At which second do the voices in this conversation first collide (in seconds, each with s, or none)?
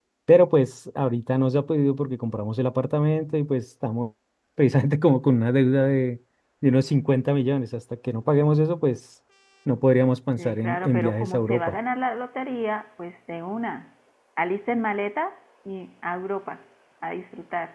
10.4 s